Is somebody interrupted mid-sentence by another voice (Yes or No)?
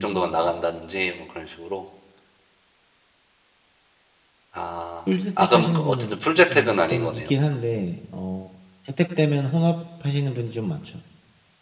Yes